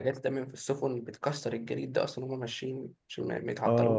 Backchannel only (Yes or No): No